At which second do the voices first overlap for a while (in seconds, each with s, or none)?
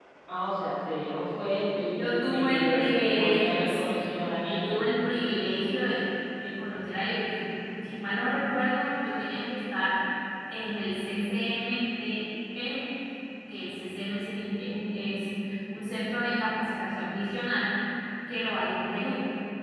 1.9 s